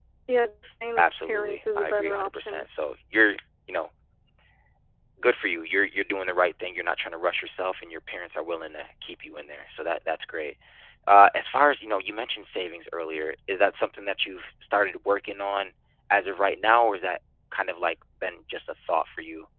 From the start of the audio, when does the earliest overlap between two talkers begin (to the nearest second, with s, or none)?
1 s